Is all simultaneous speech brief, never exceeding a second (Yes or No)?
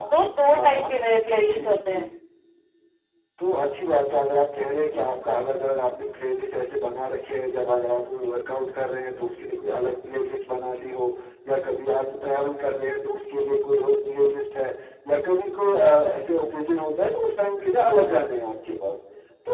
Yes